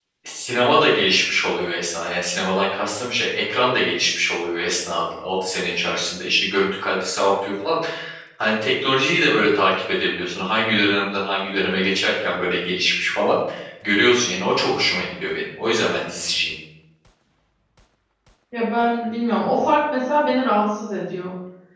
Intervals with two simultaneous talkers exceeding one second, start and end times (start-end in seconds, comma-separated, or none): none